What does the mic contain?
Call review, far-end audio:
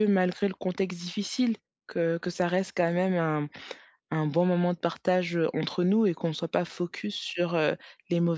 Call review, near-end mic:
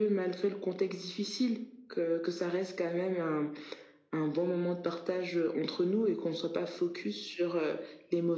echo only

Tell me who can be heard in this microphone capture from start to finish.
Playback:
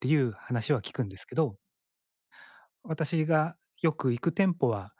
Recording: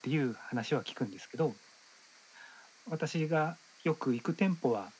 echo only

